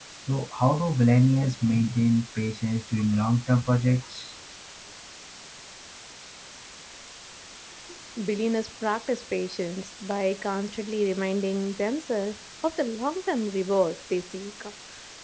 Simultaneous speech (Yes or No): No